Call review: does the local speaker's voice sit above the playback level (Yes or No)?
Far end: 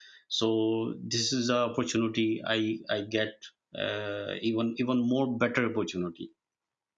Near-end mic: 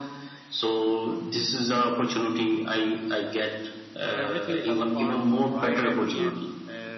No